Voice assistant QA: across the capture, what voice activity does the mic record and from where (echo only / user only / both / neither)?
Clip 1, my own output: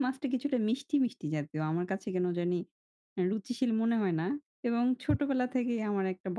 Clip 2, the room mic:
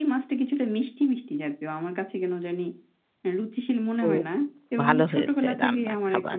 both